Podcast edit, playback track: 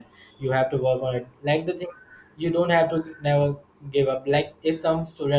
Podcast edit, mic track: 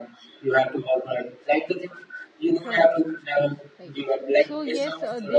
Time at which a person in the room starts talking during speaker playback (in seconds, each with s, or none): 2.6 s